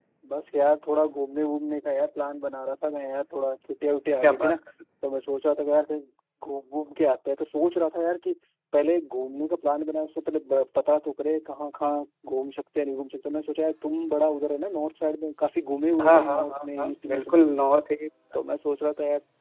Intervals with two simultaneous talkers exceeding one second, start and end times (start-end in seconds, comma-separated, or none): 16.0-17.4